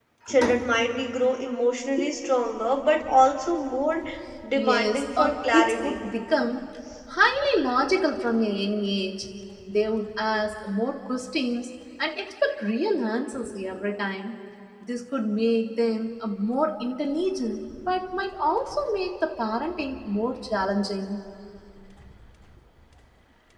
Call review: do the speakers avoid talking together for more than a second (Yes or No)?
No